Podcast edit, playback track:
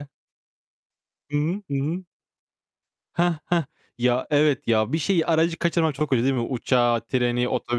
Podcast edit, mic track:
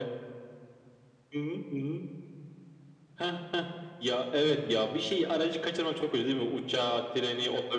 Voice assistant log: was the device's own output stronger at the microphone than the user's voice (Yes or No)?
Yes